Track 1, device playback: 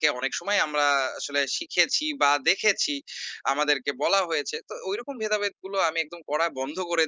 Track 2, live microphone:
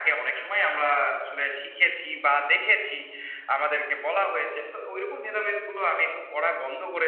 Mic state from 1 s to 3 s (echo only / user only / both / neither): echo only